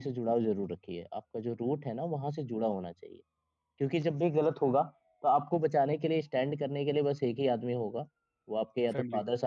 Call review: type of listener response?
listening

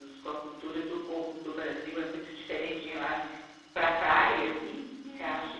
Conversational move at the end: taking over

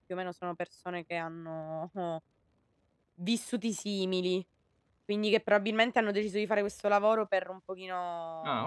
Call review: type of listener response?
listening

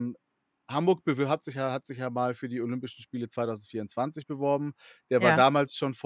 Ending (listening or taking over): listening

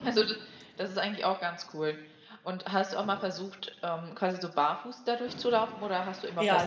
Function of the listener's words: taking over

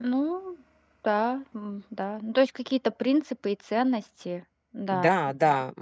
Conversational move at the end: taking over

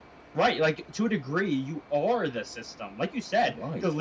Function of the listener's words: listening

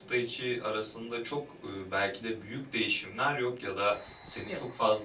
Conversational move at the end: listening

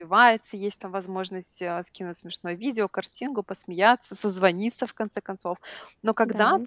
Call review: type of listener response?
listening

